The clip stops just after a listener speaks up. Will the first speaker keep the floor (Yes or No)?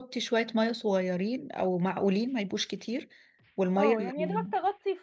No